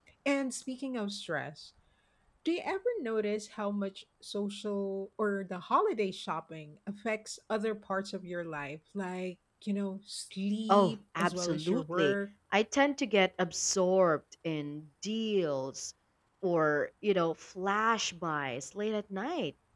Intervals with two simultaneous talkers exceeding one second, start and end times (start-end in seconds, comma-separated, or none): 10.7-12.2